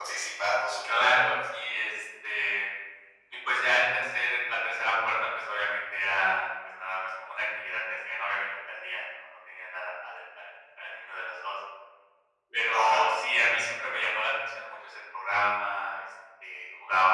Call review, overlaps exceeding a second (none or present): none